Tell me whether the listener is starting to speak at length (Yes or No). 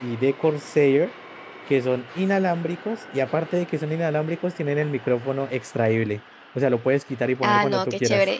Yes